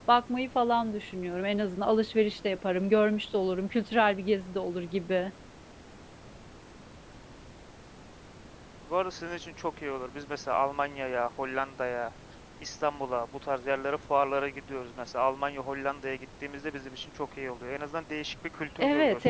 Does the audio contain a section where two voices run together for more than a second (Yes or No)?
No